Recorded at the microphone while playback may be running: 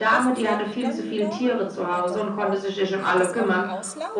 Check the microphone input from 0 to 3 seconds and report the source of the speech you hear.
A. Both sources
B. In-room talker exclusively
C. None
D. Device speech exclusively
A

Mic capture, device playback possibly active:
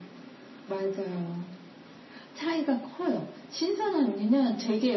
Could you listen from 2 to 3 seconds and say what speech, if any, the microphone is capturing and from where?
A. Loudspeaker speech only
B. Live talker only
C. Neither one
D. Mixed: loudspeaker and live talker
A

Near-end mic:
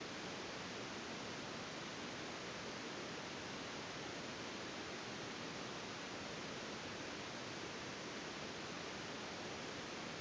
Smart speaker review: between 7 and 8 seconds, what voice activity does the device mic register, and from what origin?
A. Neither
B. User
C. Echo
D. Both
A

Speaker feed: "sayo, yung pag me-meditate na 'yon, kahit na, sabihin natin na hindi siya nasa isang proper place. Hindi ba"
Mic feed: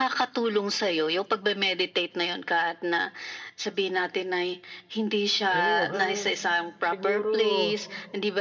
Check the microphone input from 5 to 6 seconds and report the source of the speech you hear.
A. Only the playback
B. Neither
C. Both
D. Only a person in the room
C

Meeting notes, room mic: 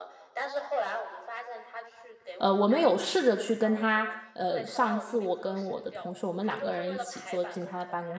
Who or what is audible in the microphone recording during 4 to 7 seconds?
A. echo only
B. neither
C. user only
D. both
D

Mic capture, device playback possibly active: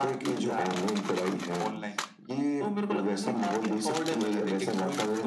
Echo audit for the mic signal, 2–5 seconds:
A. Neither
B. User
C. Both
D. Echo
D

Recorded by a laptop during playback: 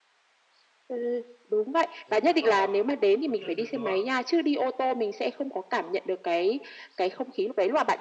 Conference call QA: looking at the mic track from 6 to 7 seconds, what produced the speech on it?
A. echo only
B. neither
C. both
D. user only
A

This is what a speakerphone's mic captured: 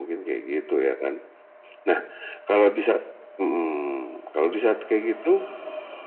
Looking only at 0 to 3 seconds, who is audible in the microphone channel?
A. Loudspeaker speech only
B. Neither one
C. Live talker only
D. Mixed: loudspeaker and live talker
A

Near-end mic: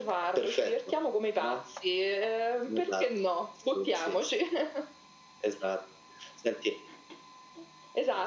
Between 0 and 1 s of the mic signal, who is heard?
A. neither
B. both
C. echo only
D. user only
C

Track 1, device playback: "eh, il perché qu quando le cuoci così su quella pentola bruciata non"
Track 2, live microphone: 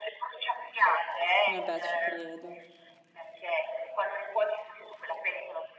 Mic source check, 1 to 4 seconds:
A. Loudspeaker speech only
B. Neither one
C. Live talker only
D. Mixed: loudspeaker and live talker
D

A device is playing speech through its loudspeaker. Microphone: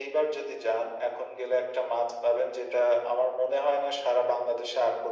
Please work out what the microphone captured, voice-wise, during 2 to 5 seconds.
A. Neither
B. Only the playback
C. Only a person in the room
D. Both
B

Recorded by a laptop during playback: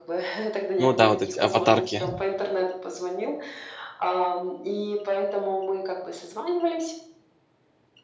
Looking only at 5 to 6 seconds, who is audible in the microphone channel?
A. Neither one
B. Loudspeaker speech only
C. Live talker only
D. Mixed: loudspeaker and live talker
B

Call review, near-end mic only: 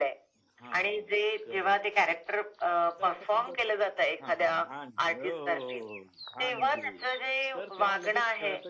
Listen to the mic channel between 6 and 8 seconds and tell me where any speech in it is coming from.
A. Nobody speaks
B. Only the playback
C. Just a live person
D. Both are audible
D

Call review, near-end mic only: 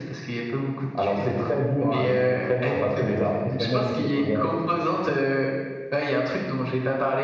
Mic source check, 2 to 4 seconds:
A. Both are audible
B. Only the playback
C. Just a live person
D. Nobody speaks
B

